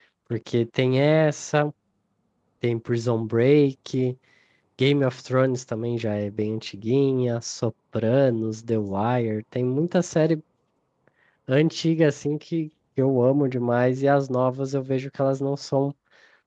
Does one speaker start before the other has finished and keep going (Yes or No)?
No